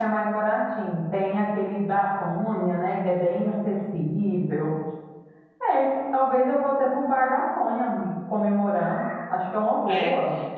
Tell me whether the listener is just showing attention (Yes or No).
No